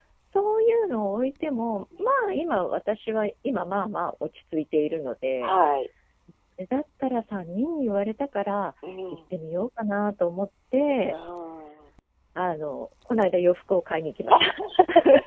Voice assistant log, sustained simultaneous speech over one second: none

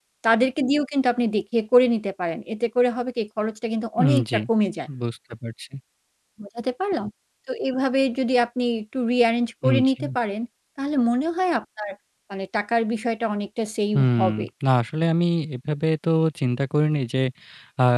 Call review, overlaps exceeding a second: none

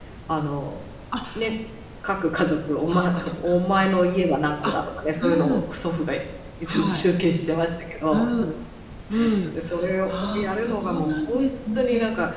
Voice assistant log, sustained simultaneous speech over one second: present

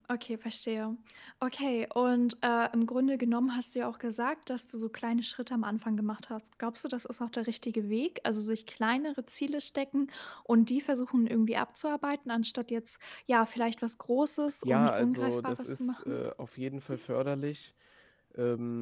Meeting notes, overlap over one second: present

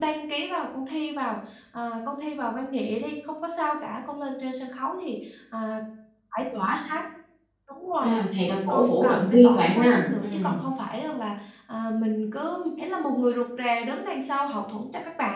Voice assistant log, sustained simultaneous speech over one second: present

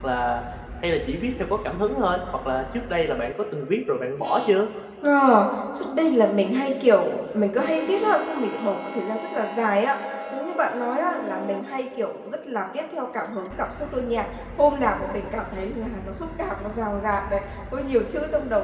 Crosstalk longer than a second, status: none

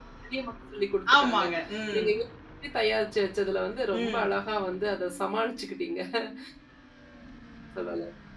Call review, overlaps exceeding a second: none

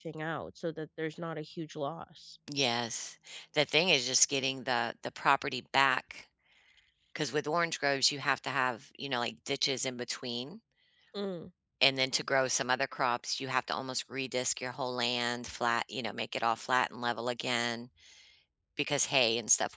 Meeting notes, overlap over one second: none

